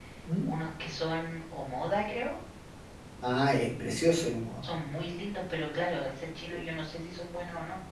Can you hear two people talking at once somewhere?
No

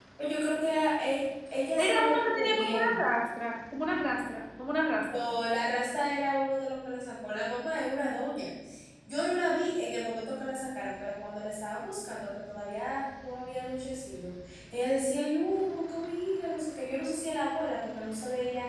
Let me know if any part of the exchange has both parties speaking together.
Yes, from 1.8 s

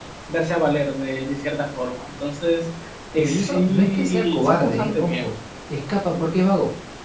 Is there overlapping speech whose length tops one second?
Yes, from 3.1 s

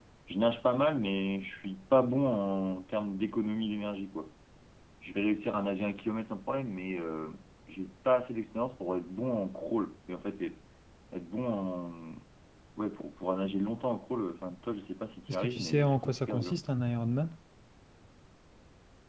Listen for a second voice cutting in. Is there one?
Yes, from 15.3 s

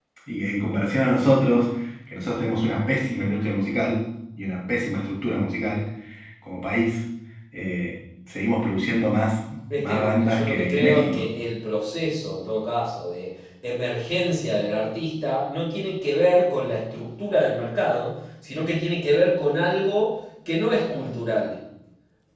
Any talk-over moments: Yes, from 9.7 s

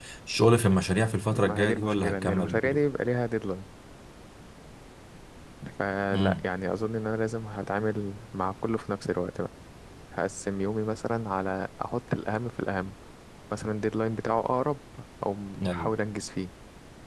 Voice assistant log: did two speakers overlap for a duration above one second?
Yes, from 1.3 s

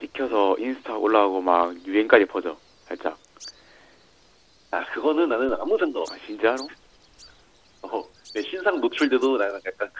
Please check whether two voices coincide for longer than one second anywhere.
No

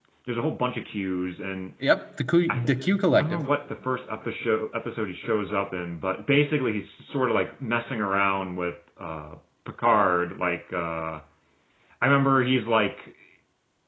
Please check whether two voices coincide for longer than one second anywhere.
No

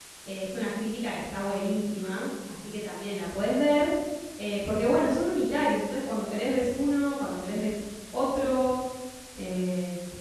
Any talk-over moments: No

